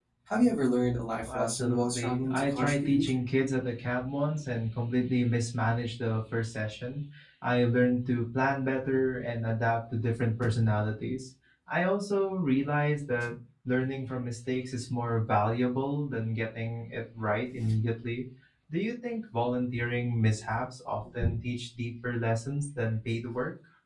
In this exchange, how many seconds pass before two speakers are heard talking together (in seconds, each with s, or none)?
1.2 s